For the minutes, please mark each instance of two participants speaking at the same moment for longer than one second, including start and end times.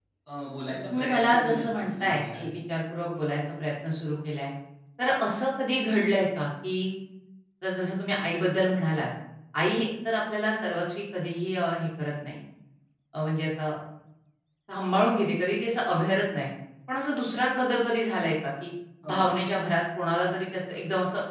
1.0-2.5

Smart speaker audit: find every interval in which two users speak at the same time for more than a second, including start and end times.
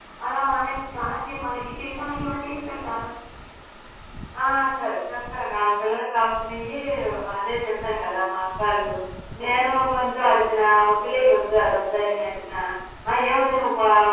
none

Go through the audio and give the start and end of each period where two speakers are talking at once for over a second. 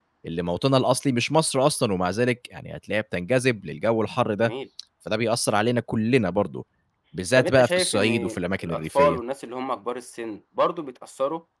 7.3-9.2

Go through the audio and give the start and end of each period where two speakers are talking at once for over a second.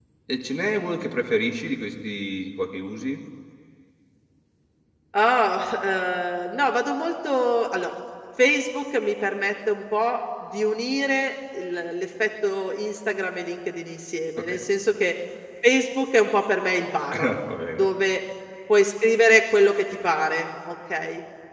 none

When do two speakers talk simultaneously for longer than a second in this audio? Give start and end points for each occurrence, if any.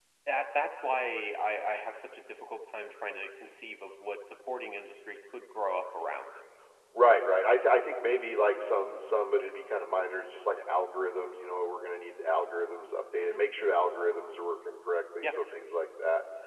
none

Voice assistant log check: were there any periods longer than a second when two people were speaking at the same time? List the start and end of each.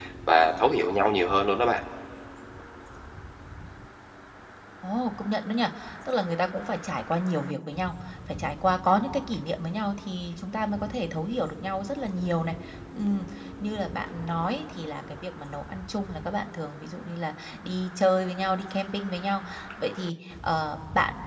none

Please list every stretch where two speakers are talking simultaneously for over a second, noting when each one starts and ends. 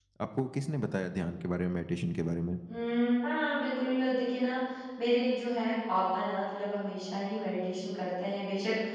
none

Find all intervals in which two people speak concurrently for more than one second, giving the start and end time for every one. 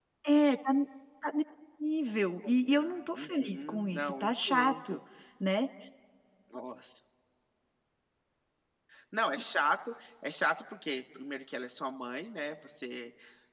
2.5-5.0

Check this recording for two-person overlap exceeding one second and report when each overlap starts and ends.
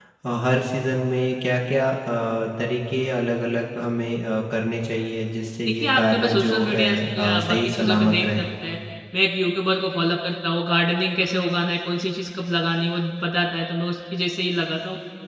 5.8-8.4

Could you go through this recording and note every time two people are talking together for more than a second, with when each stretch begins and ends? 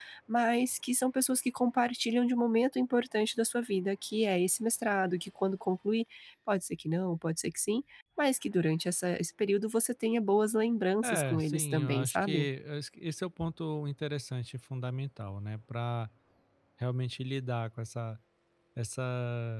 11.0-12.5

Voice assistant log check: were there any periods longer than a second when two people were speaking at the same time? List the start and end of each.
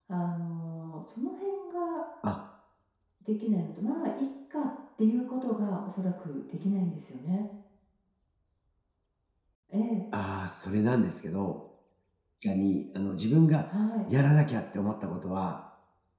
none

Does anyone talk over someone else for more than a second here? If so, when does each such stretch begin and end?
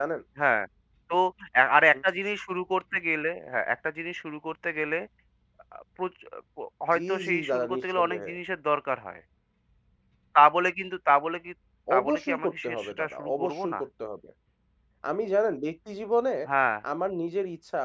6.9-8.3, 12.0-13.8

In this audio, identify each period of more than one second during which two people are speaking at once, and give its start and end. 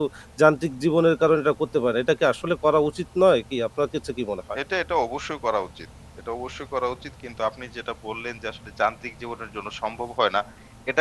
none

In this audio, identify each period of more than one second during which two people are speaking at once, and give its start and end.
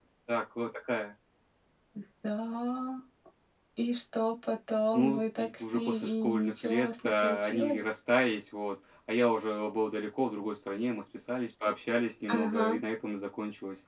4.9-7.8

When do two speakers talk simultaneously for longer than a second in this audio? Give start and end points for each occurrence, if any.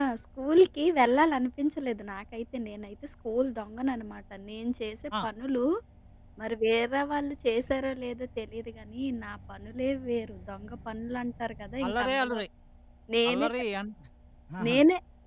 none

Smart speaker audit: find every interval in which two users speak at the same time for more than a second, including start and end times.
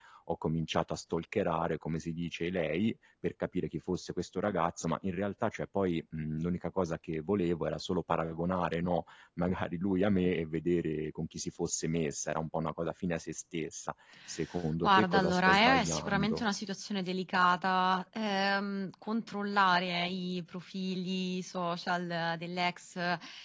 14.8-16.4

